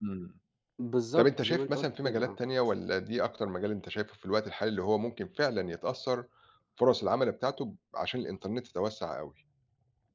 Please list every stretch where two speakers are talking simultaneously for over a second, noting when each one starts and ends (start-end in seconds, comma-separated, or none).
1.2-2.4